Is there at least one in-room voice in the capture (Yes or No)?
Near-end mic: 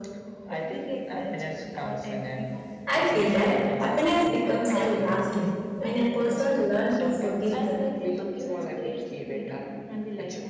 Yes